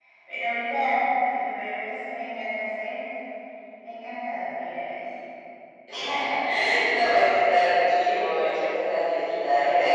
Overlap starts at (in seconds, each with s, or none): none